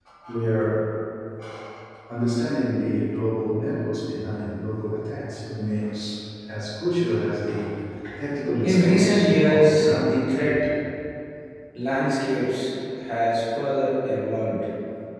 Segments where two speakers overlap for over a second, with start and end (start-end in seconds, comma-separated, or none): 8.6-10.2